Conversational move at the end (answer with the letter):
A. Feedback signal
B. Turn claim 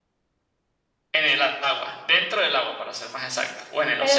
B